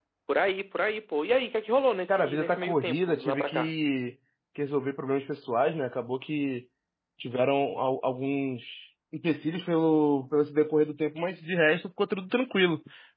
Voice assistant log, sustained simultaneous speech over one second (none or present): present